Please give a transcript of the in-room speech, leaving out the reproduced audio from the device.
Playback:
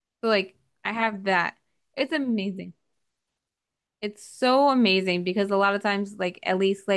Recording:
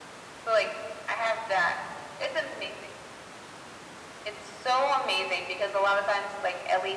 none

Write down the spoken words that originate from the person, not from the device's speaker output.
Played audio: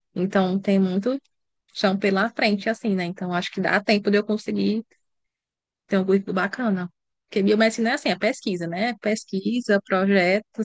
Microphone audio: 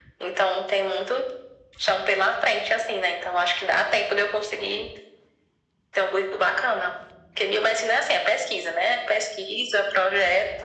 none

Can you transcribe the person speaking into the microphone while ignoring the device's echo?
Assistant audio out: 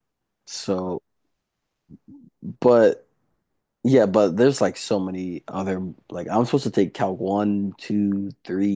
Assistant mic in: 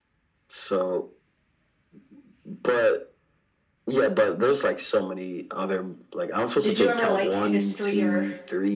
did you ever like history or

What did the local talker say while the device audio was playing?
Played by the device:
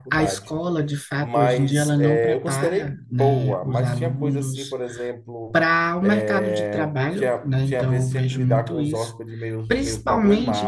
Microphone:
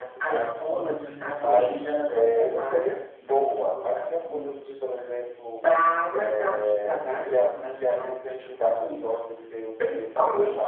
a forma como você

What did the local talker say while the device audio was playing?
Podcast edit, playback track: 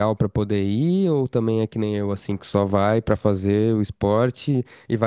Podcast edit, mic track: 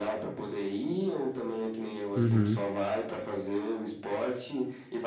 Uhum.

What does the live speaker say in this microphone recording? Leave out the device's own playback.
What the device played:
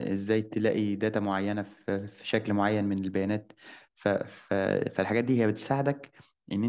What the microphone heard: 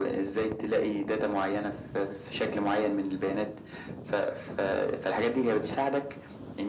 none

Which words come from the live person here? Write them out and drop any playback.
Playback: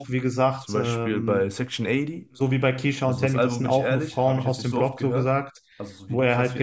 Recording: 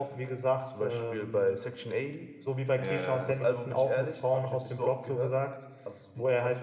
Ja,

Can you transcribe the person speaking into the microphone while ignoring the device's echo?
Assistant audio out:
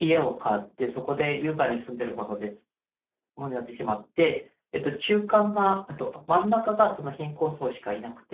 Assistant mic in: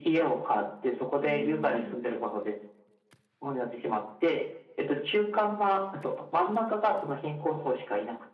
うん、

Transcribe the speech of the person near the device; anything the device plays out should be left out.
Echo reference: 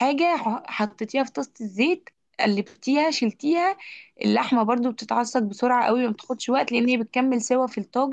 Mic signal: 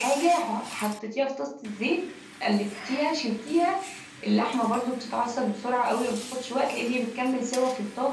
none

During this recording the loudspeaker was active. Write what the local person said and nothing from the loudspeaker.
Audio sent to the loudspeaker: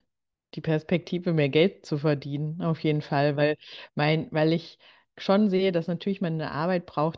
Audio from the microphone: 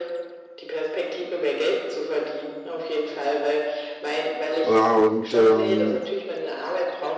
Ja, und ähm,

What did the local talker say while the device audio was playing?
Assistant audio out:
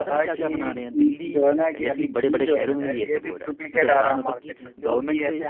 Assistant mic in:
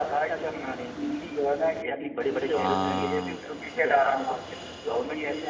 हाँ

